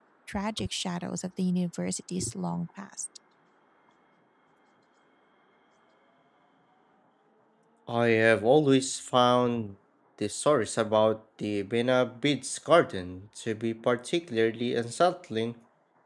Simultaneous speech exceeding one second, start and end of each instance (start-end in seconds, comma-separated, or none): none